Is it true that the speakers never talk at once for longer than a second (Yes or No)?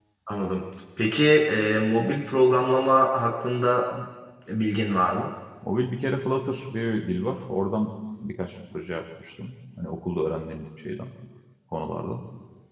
Yes